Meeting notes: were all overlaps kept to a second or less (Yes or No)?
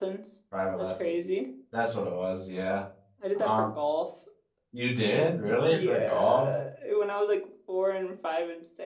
No